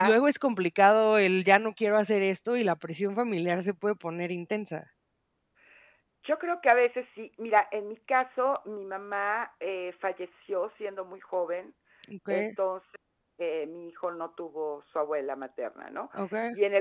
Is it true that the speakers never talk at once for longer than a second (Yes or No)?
Yes